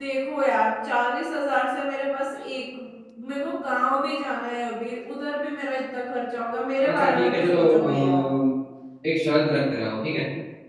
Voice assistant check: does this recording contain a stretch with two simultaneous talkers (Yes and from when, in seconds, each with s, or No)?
Yes, from 6.8 s